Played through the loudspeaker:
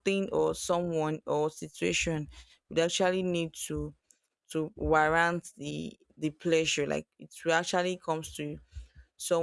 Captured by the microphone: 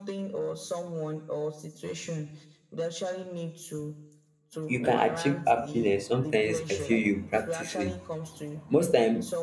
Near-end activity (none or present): present